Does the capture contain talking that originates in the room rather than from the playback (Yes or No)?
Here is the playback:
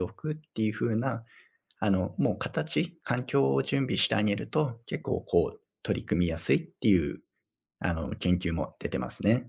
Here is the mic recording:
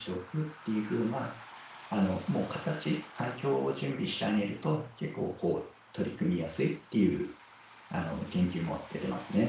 No